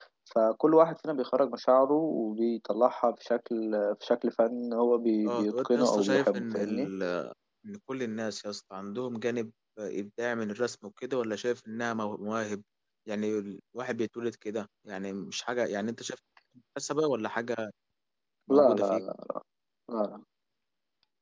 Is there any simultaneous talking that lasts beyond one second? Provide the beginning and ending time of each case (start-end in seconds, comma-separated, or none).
5.3-6.9